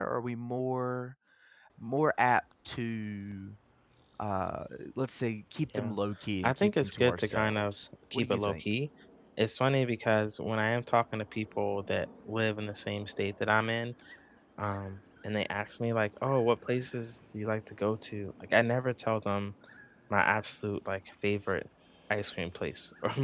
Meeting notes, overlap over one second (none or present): present